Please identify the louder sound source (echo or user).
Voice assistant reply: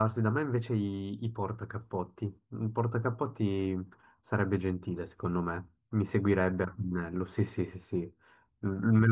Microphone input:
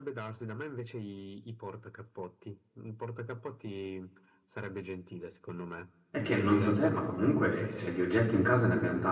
user